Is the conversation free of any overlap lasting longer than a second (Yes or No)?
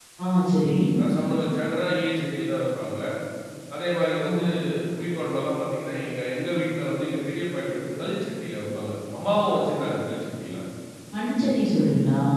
Yes